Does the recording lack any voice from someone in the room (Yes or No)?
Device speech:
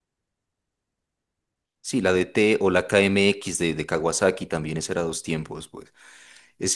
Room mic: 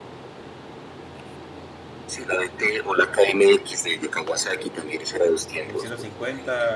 No